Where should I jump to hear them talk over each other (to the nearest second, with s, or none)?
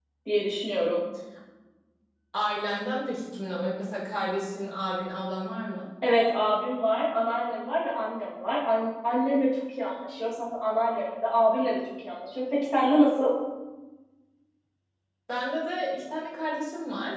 none